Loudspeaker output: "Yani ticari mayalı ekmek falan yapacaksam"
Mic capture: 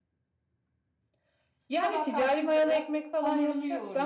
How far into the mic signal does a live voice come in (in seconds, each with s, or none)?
1.7 s